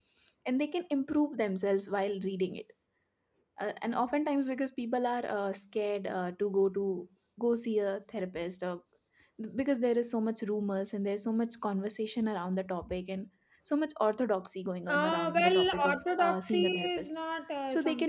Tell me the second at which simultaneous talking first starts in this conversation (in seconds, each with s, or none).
14.9 s